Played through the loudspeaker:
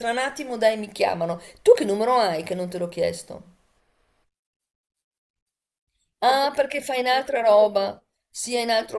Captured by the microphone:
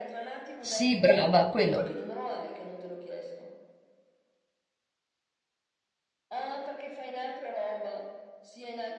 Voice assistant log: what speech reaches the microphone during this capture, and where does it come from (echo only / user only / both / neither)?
both